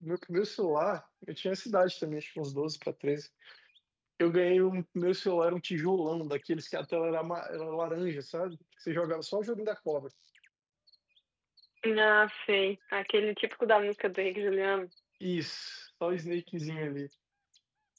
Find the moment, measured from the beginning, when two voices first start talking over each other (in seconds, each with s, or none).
none